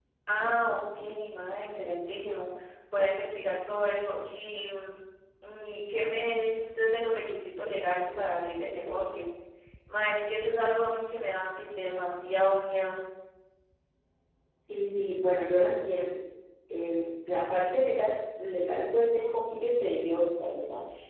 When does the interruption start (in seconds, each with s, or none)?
none